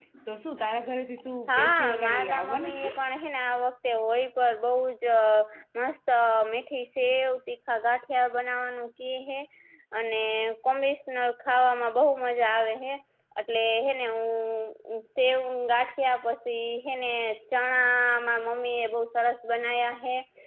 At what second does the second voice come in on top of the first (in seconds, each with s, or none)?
1.5 s